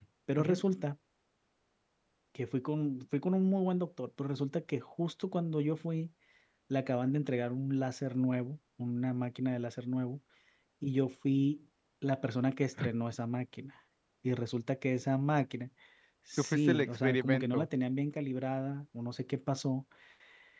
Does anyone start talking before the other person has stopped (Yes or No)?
Yes